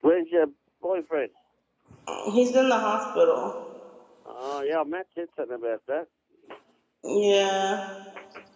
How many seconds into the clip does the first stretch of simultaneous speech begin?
none

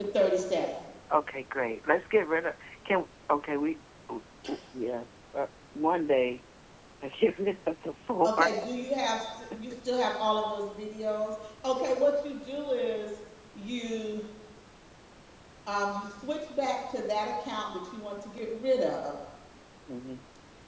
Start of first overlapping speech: none

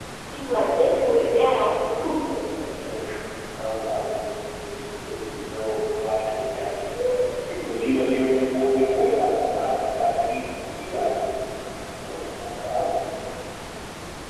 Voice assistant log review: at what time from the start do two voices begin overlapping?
none

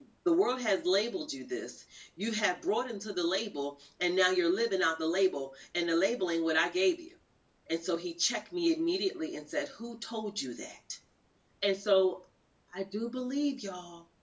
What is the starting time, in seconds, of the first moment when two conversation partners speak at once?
none

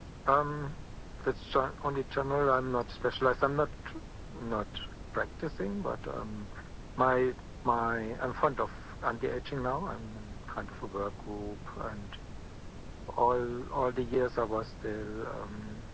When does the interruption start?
none

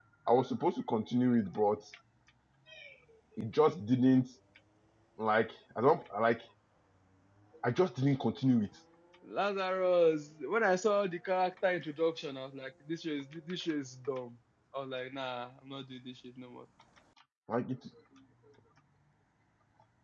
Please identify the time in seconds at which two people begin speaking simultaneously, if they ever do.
none

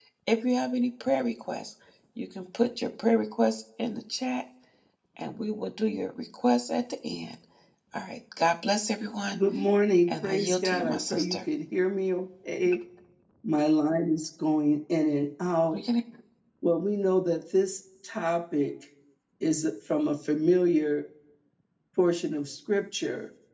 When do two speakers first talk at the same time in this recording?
10 s

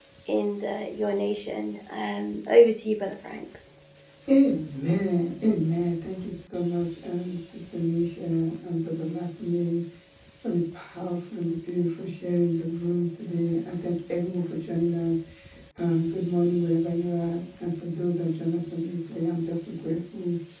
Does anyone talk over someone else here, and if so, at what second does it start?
none

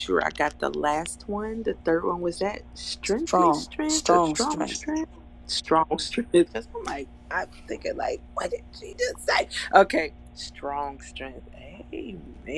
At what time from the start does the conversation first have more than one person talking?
3 s

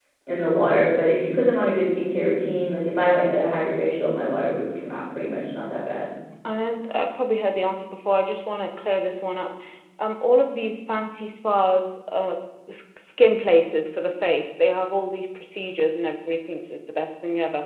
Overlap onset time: none

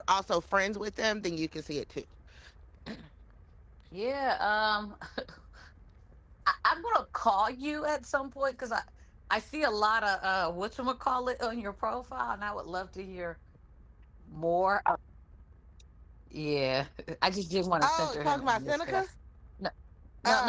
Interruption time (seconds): 18 s

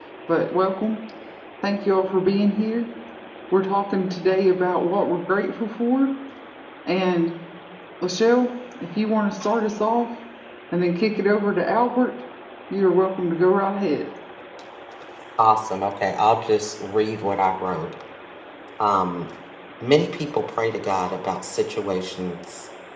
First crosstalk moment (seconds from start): none

